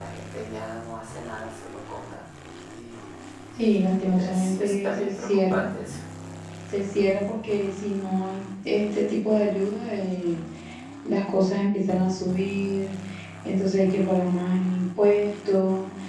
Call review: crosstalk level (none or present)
present